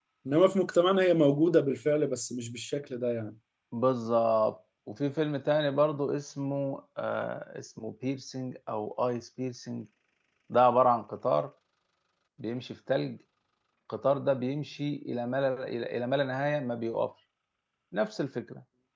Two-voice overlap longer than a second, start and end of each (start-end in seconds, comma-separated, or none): none